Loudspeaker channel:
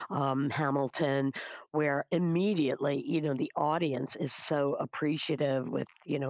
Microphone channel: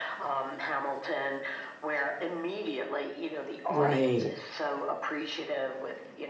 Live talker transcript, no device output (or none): right.